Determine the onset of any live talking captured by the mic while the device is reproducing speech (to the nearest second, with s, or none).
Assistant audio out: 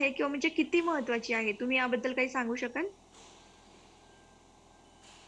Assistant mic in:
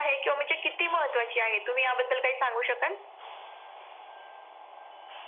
none